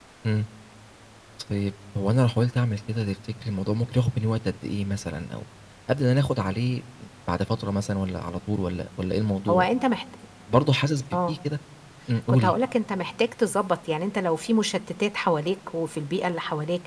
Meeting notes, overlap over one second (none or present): none